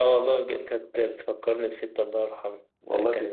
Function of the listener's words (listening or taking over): listening